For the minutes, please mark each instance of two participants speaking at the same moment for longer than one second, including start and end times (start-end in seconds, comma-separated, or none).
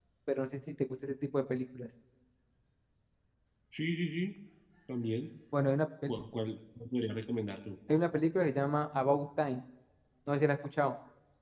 none